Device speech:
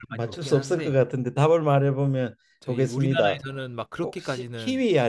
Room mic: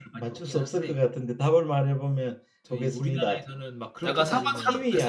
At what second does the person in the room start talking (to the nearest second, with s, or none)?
4 s